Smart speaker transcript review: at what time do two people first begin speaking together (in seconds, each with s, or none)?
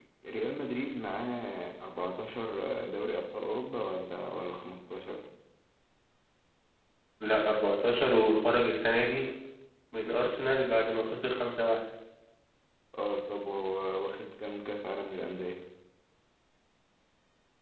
none